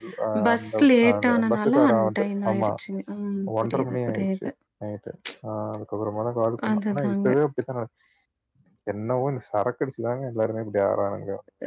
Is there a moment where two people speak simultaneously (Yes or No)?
Yes